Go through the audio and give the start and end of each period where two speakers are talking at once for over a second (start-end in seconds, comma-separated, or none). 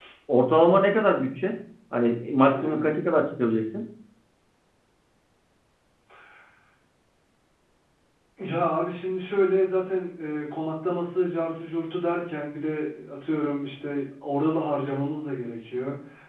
none